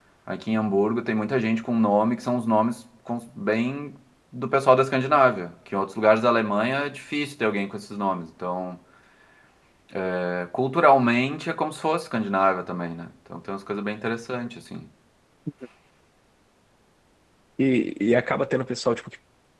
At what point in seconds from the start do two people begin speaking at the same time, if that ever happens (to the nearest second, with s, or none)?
none